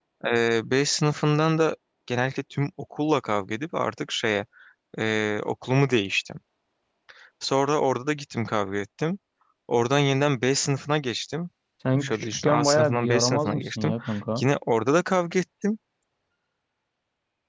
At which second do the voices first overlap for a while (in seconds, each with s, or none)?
12.0 s